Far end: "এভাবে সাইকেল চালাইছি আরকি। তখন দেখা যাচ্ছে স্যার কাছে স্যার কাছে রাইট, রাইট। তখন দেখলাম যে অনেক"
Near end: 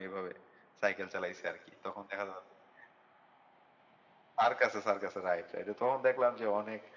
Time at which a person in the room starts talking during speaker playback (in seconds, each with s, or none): none